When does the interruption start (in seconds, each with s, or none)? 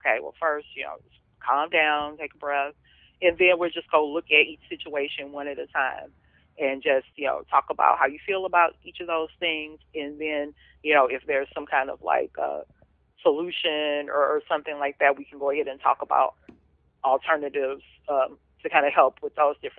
none